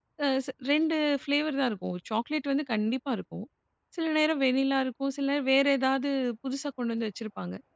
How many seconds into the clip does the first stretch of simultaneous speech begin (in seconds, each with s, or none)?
none